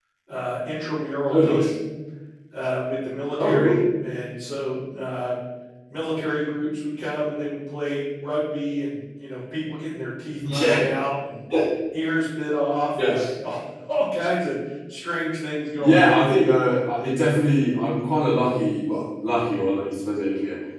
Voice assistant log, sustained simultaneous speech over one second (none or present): none